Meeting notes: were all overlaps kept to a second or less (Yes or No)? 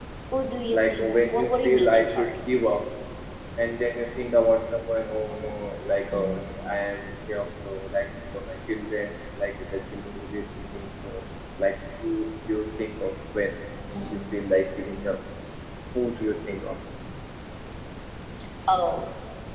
No